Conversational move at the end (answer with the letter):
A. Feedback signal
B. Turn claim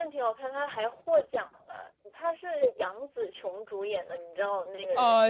B